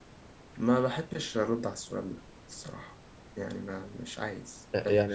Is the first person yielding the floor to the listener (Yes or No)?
Yes